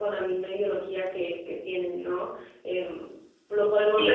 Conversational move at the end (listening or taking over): taking over